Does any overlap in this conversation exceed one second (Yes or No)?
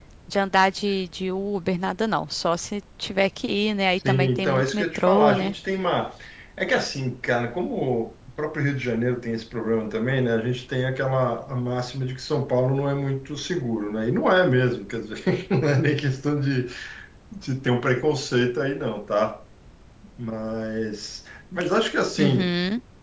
Yes